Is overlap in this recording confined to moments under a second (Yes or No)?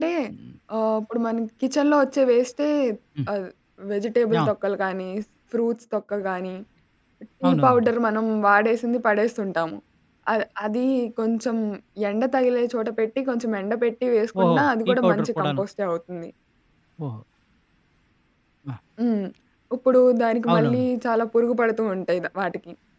No